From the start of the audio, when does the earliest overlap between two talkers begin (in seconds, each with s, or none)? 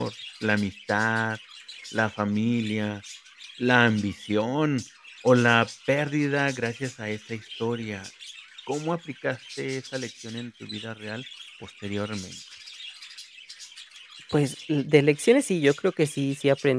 none